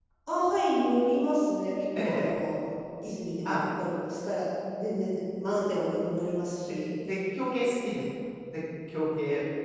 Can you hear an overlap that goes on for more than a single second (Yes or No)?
No